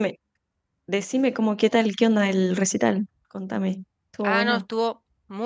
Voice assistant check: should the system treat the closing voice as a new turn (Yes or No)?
Yes